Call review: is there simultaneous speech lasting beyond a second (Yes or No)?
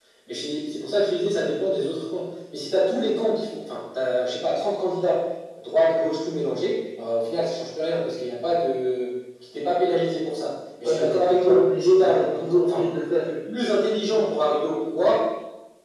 Yes